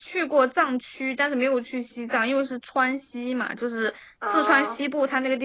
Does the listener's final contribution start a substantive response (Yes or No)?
No